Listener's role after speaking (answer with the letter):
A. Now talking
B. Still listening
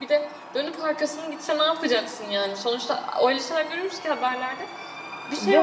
A